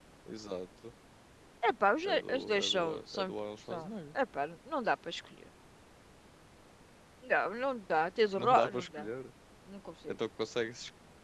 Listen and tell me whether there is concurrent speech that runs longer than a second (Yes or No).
Yes